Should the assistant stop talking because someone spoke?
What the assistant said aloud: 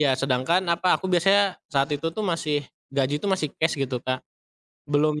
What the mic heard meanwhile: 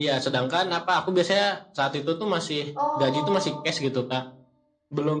Yes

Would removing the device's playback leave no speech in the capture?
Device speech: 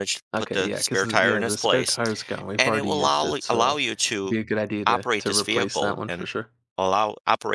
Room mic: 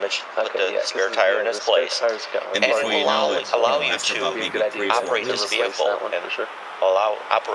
No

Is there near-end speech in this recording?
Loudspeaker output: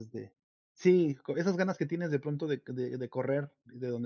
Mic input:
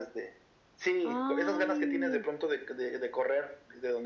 Yes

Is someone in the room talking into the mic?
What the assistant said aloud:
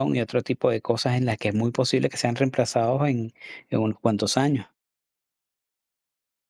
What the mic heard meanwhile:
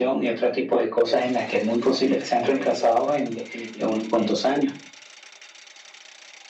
Yes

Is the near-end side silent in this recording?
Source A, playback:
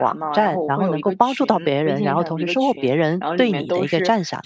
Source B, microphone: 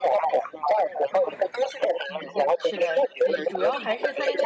No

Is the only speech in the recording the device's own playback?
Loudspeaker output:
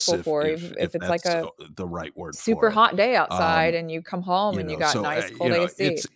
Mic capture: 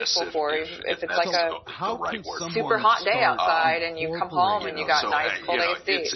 No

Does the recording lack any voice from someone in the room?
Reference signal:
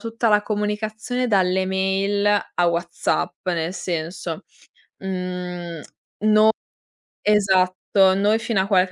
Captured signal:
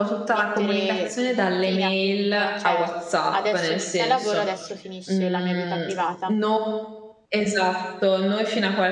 No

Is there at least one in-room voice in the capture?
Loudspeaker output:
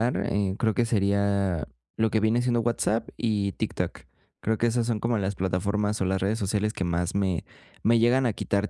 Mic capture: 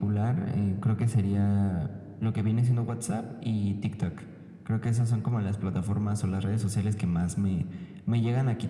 No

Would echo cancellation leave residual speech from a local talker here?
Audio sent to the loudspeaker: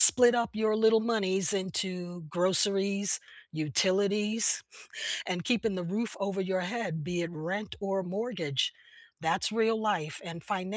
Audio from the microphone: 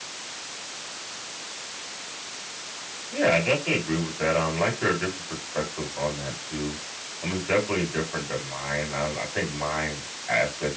Yes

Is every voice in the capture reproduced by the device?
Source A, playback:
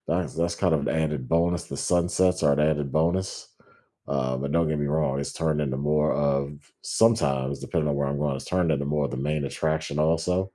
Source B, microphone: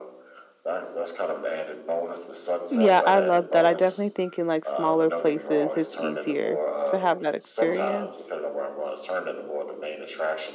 No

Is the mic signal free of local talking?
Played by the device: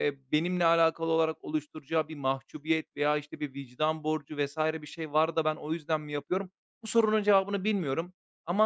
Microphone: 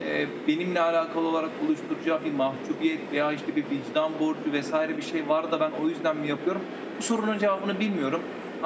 Yes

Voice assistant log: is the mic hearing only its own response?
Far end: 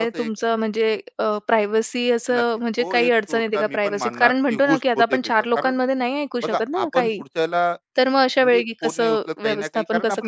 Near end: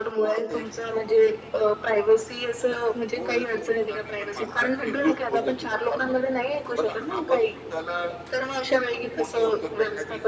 Yes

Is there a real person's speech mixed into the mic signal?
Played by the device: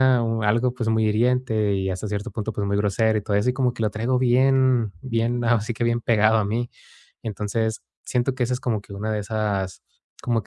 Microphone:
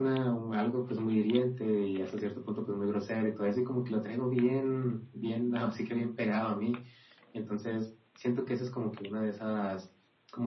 No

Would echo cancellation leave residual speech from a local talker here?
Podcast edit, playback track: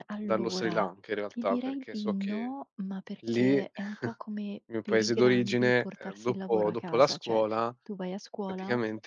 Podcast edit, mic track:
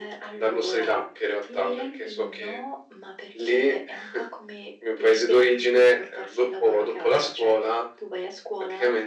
No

